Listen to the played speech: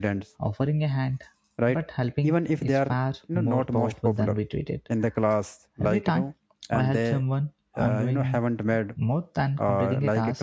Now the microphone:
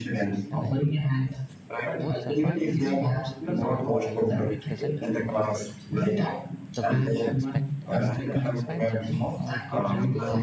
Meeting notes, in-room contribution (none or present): present